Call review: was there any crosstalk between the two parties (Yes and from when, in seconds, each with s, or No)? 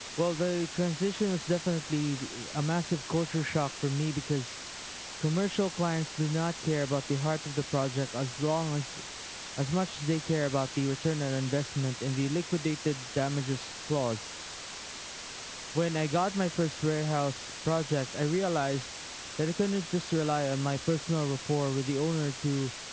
No